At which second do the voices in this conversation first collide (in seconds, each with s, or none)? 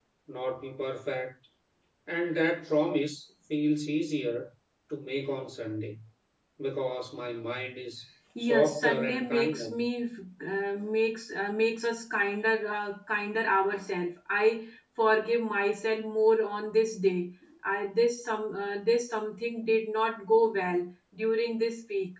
8.3 s